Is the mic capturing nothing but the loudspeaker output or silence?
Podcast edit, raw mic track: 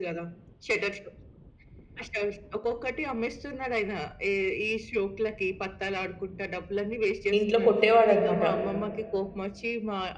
No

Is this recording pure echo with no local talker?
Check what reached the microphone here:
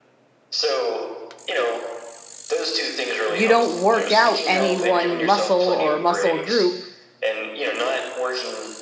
No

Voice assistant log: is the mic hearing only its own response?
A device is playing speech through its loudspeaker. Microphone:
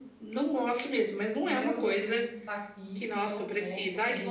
No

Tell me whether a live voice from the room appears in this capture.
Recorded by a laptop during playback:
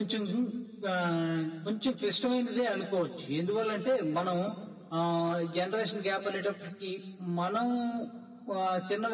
No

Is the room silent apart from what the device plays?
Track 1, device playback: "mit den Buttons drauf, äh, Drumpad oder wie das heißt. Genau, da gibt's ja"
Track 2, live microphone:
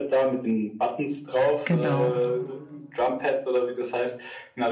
No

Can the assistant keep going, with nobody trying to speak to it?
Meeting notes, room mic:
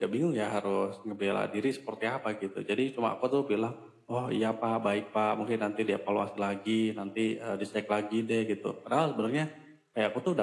Yes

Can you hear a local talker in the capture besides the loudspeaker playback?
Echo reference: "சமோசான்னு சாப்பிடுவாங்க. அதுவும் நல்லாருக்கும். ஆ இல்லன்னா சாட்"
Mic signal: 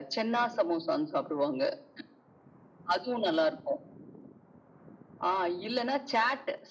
No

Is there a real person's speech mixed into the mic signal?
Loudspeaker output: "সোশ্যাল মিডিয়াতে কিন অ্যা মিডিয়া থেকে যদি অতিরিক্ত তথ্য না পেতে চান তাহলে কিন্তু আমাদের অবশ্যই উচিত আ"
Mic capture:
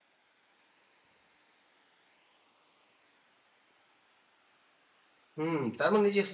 Yes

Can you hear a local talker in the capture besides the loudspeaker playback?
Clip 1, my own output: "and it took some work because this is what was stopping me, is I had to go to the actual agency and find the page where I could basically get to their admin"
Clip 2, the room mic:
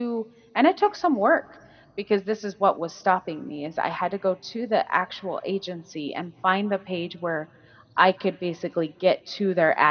No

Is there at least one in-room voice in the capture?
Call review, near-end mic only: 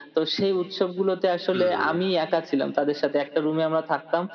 Yes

